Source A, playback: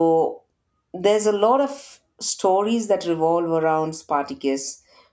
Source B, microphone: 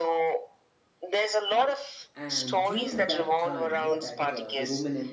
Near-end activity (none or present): present